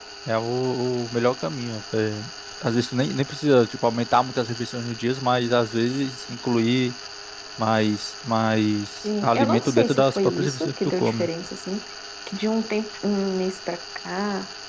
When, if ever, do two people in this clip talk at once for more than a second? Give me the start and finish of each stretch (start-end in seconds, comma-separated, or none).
9.0-11.3